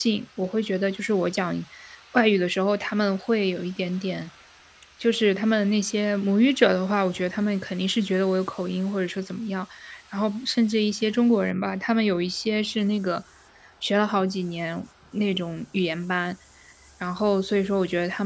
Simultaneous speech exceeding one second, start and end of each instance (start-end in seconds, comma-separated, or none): none